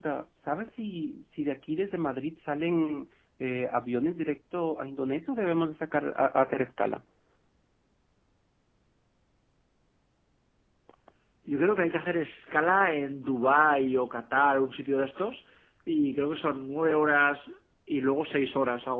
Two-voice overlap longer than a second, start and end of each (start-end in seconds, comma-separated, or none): none